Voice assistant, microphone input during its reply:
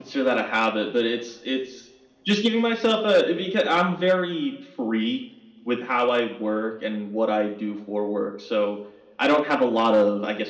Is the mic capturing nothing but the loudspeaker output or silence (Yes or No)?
Yes